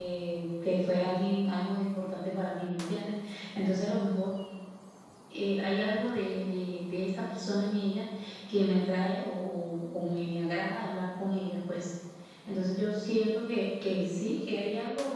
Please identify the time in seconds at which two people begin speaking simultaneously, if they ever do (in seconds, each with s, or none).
none